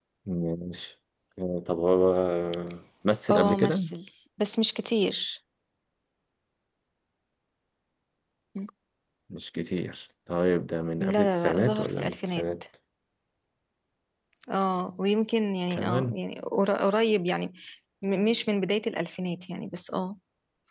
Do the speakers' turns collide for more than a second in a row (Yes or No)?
Yes